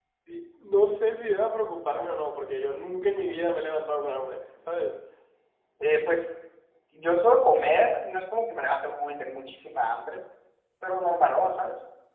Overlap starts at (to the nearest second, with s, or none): none